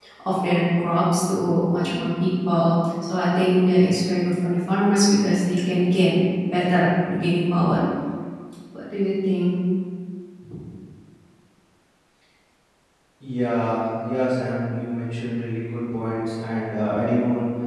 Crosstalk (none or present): none